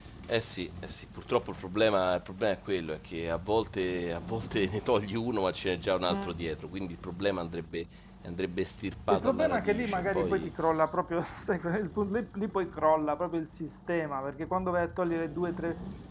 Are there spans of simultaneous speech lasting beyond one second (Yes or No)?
Yes